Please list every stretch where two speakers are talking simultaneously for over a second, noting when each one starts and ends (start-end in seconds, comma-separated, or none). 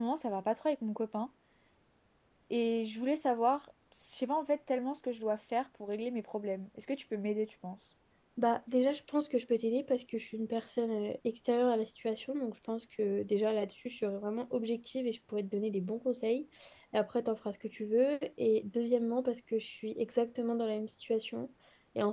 none